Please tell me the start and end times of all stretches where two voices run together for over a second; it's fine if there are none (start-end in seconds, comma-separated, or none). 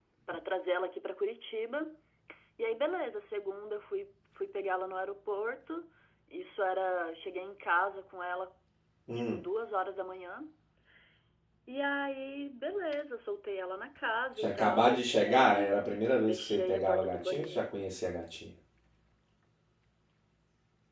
14.4-15.6, 16.2-17.7